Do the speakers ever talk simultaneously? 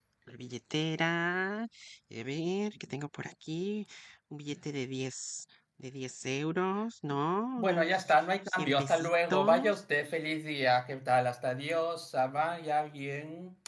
Yes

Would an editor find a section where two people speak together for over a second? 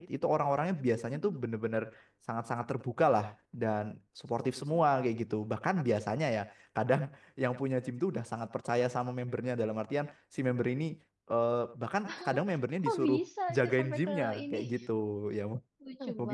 Yes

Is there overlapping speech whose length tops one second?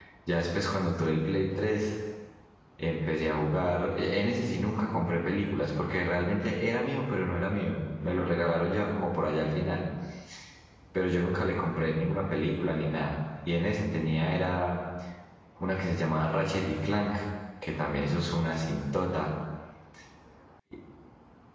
No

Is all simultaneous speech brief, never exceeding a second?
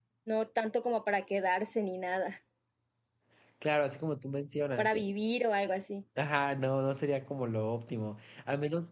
Yes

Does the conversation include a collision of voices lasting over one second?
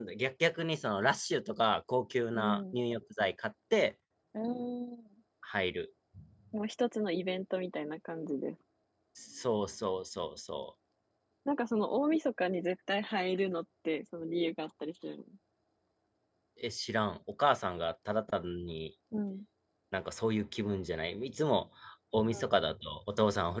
No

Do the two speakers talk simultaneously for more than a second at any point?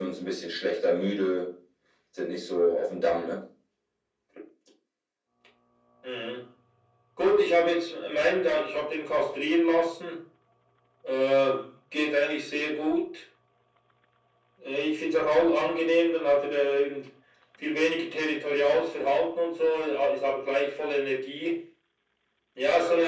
No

